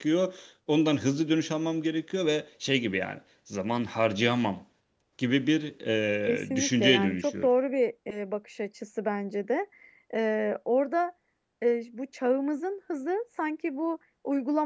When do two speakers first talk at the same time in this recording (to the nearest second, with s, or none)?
6 s